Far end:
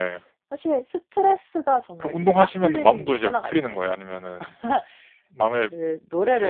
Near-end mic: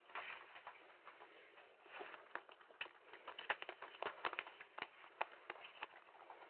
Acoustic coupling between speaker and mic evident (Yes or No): No